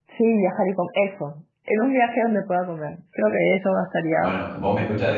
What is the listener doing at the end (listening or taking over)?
taking over